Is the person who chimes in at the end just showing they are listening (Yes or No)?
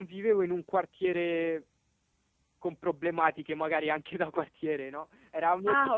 Yes